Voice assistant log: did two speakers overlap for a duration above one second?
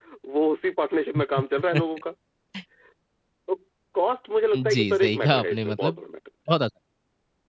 Yes, from 4.5 s

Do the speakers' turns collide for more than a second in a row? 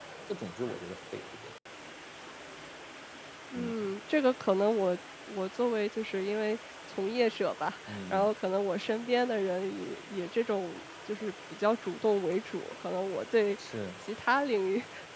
No

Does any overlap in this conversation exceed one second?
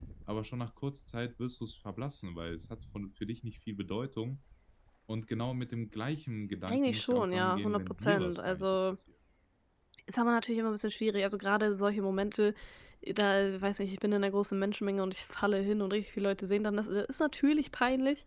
Yes, from 6.7 s

